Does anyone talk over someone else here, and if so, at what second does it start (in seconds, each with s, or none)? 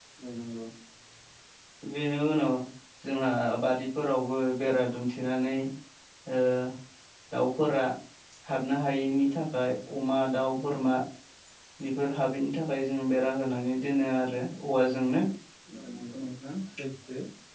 none